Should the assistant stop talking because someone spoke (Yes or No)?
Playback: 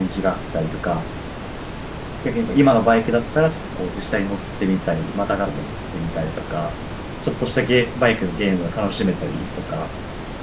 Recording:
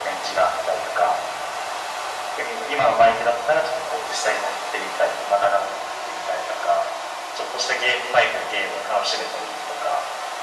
No